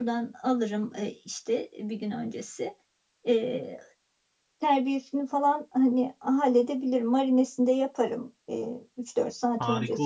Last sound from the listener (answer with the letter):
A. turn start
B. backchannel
A